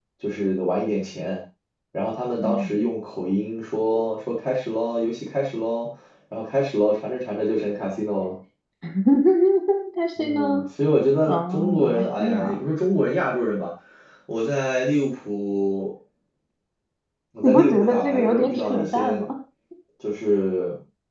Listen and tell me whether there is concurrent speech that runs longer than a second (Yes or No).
Yes